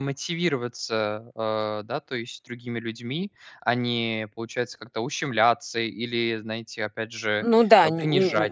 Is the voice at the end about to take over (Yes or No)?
Yes